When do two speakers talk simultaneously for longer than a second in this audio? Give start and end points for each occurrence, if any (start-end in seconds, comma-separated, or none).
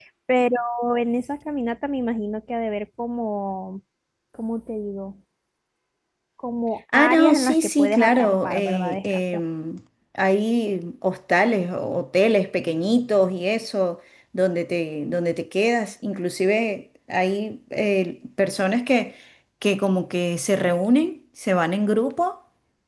6.9-9.2